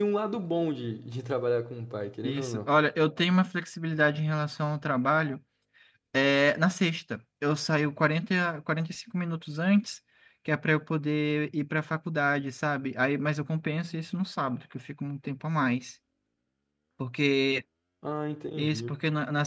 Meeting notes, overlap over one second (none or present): none